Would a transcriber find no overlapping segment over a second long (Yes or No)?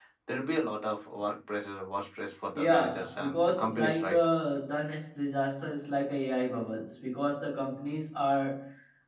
No